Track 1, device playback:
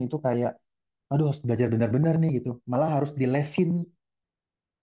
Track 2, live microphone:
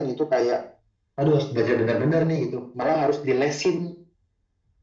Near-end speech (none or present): none